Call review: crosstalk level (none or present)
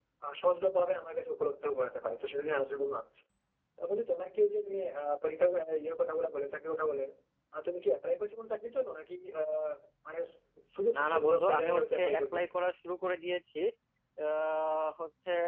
present